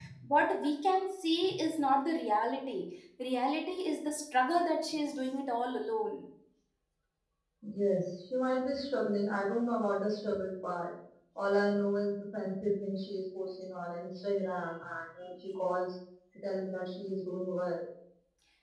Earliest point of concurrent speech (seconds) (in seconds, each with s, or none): none